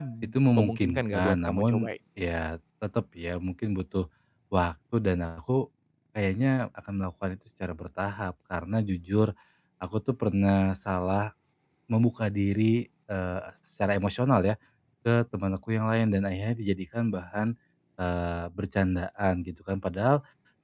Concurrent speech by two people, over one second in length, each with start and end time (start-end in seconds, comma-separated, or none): 0.5-1.9